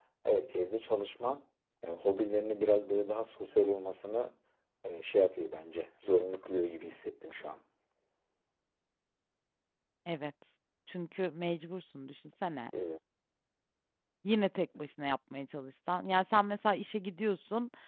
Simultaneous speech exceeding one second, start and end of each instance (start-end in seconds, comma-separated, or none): none